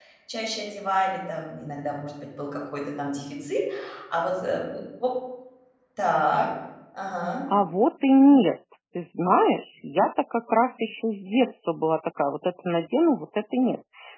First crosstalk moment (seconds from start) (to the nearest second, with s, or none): none